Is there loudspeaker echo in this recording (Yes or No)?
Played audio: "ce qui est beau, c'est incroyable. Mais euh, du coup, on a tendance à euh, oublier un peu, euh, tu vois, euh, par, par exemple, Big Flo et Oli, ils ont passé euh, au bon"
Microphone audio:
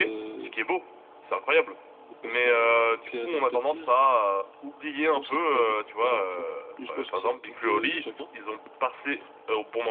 Yes